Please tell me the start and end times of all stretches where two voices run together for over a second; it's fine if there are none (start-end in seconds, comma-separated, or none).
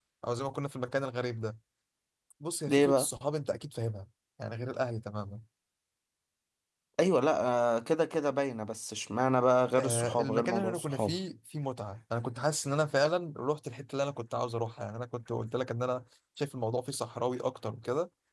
9.8-11.2